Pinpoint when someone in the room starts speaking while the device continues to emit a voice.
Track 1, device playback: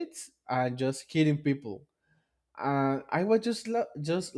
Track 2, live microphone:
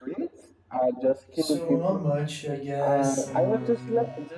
1.3 s

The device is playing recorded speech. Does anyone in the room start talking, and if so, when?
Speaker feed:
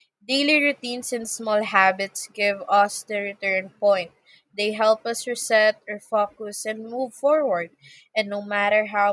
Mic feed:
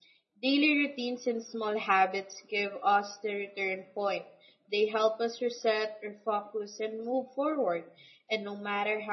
none

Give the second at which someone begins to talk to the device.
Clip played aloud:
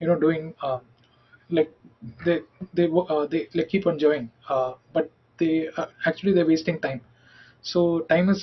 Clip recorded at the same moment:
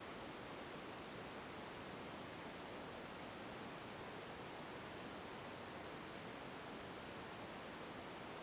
none

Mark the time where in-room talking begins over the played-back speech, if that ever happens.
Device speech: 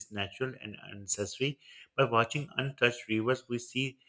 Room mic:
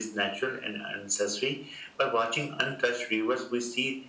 none

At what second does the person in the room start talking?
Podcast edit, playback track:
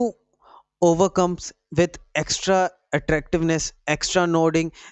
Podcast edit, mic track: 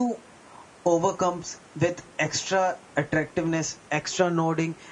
none

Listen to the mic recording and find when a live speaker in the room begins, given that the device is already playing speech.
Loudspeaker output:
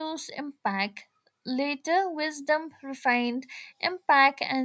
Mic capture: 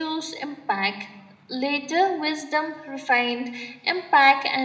none

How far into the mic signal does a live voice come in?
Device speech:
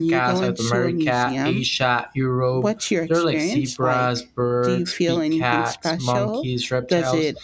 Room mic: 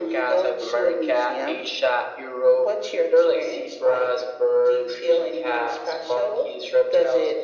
none

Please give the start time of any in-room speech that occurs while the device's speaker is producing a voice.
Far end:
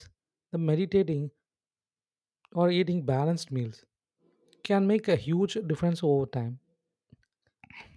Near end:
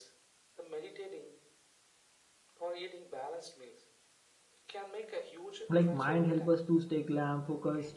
5.7 s

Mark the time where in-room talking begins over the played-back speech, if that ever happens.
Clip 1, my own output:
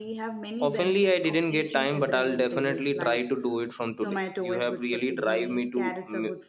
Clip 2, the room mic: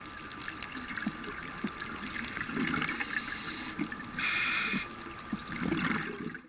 none

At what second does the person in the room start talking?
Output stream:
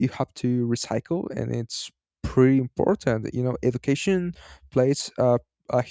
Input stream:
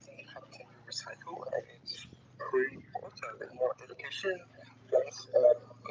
none

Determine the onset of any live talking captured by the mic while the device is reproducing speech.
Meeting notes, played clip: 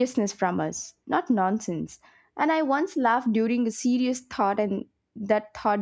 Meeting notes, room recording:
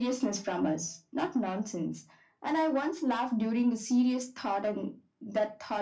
none

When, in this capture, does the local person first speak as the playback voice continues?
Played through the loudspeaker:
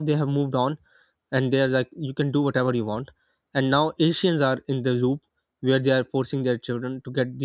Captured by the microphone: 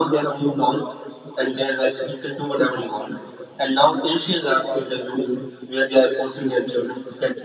none

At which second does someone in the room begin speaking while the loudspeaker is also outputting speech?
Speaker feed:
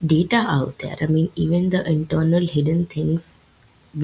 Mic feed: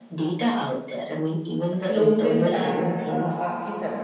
1.8 s

